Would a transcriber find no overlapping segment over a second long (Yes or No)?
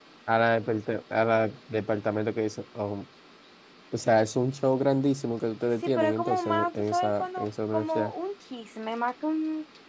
No